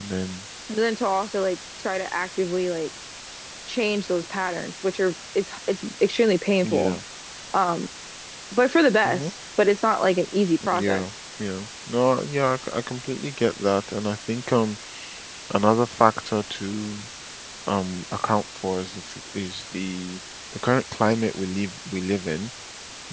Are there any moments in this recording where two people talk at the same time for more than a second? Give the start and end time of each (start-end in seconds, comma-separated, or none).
none